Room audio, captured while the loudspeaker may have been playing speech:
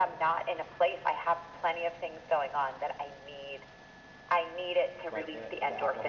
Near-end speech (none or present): present